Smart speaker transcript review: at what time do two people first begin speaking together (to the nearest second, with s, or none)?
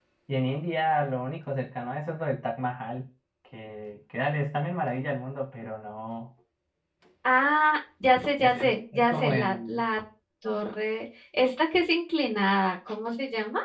8 s